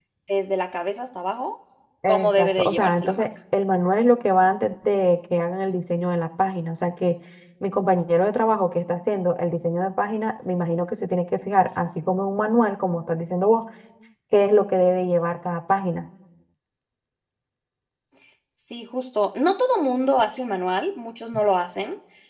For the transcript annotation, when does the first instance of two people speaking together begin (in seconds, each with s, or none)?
2.1 s